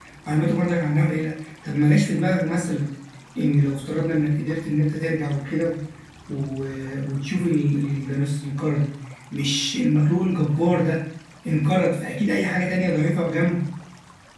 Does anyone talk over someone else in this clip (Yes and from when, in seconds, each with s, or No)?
No